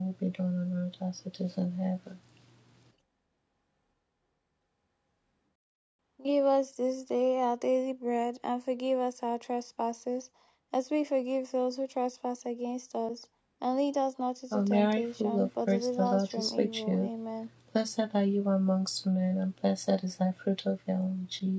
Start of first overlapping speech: 14.5 s

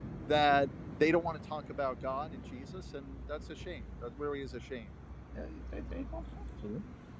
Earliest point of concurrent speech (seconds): none

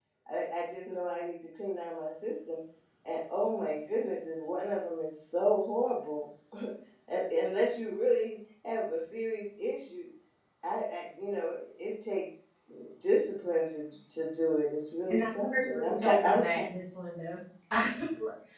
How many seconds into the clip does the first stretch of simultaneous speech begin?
15.1 s

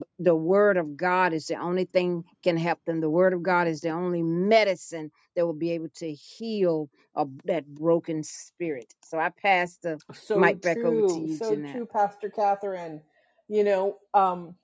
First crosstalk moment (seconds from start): 10.1 s

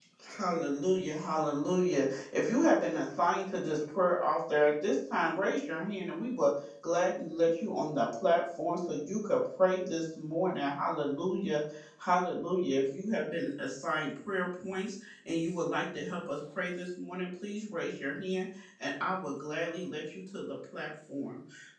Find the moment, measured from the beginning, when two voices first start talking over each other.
none

